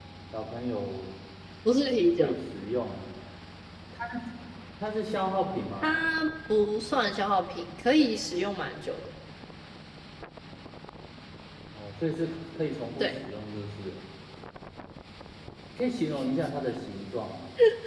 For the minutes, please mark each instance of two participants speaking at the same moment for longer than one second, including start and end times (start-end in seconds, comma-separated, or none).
none